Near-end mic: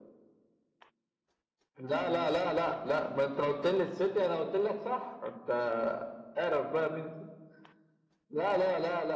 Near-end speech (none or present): none